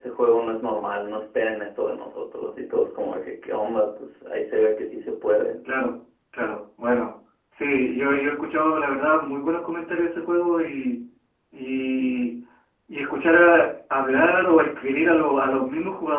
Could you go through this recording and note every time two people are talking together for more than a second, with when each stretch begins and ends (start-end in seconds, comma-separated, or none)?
none